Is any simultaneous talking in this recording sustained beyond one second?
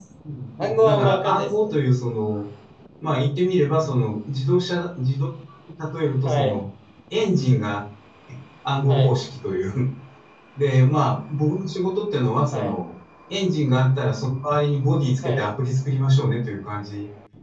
Yes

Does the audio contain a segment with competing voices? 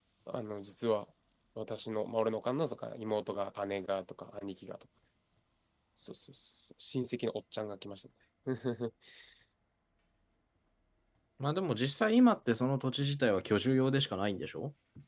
No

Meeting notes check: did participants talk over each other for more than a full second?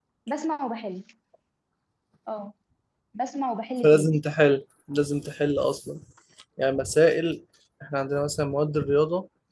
No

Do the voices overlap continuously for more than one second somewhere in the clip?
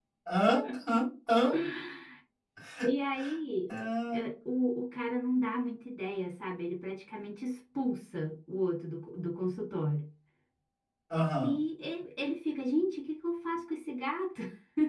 No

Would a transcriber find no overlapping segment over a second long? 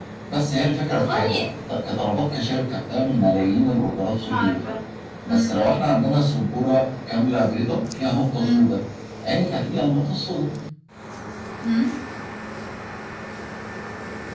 Yes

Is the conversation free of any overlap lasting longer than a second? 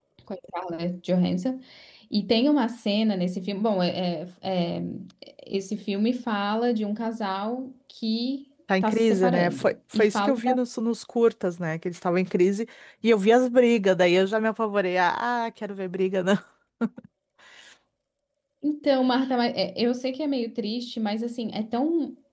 No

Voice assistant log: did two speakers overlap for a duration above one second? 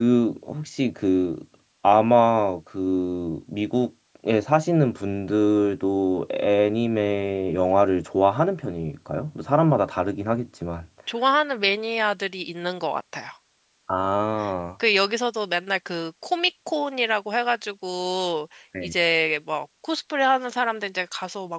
No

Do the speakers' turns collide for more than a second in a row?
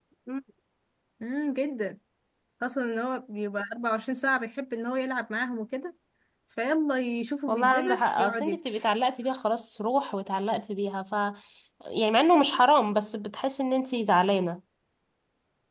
Yes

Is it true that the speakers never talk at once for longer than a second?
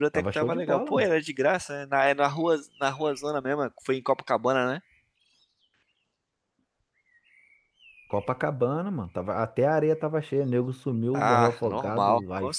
No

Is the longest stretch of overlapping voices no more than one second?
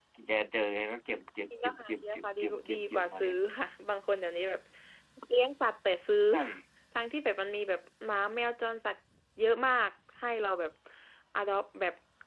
No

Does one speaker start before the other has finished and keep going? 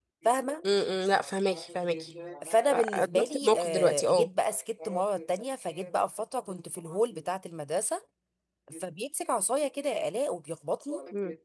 Yes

